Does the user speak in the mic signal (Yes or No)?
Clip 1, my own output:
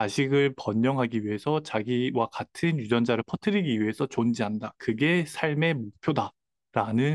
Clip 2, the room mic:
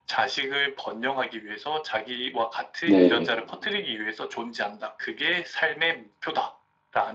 Yes